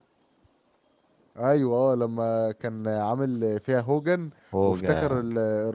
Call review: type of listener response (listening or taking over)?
listening